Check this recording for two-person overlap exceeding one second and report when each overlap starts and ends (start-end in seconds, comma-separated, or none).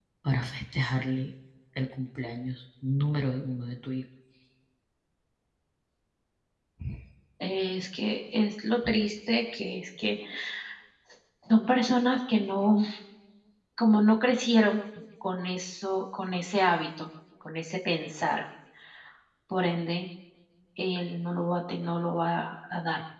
none